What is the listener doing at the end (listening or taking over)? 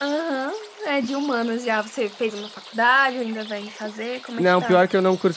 taking over